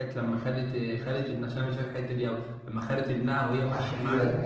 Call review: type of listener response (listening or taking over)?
taking over